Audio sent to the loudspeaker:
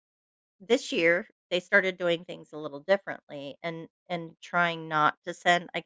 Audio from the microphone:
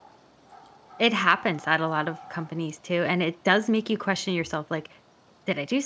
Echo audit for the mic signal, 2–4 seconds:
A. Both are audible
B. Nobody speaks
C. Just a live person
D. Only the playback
C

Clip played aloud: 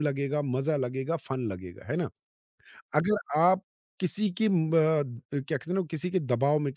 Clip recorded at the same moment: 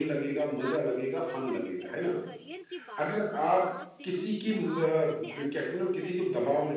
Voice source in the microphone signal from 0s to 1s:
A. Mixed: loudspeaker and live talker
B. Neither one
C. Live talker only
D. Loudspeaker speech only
A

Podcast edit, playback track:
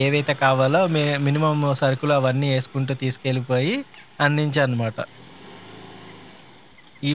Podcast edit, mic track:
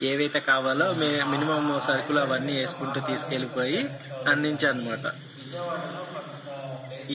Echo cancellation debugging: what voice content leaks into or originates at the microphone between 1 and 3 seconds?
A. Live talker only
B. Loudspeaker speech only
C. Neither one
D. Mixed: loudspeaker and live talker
D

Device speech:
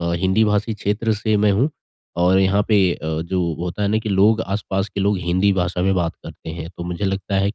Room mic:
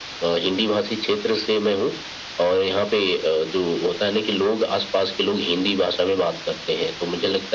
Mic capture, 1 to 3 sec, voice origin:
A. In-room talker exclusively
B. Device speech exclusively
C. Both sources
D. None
B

